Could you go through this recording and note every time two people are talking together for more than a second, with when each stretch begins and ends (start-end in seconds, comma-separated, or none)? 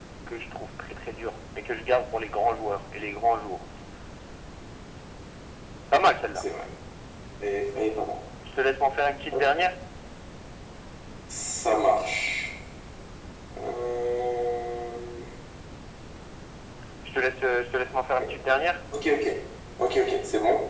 none